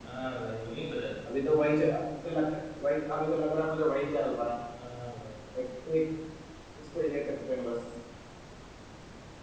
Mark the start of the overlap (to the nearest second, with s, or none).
none